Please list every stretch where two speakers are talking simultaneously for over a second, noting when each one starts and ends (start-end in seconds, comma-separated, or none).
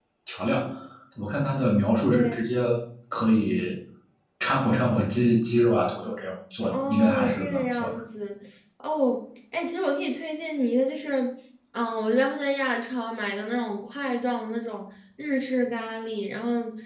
6.7-7.9